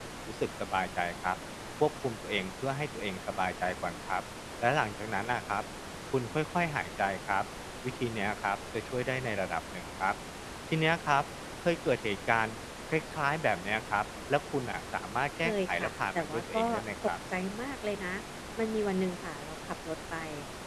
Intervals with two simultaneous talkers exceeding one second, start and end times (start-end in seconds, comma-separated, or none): 15.4-16.7